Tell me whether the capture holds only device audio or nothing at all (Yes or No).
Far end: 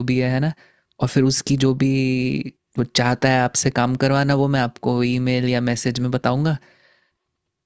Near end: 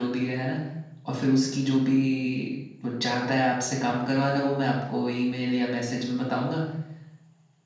Yes